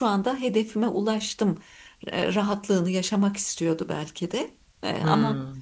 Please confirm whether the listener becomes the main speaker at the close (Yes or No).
No